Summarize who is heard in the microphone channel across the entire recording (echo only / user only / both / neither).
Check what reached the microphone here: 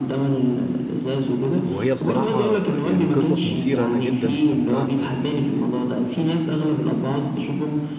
both